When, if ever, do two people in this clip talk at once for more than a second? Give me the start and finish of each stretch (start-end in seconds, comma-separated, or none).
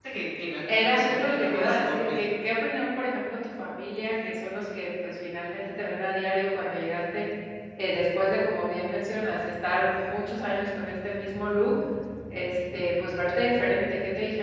0.7-2.2